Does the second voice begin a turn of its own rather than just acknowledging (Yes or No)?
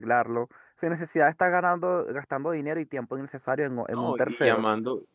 Yes